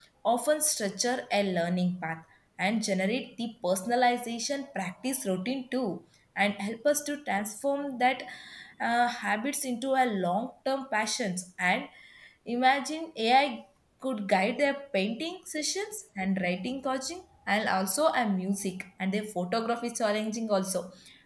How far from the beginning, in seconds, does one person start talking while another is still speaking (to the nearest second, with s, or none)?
none